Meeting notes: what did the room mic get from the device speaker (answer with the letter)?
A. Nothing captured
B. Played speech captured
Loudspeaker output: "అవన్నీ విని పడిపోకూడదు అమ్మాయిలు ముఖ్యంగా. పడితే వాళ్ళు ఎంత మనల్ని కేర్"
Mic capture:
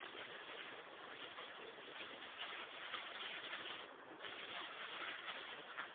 A